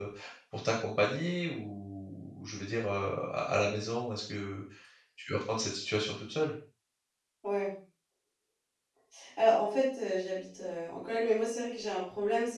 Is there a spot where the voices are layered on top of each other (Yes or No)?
No